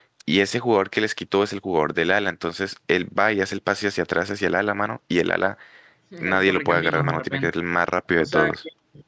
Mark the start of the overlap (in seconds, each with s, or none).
6.2 s